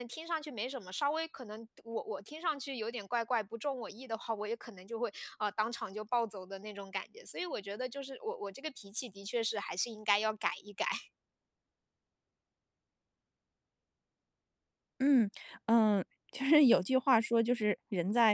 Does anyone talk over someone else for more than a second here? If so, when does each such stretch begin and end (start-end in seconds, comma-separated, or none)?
none